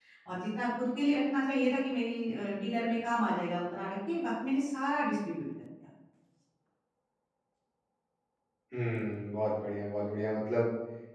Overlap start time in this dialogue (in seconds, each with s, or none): none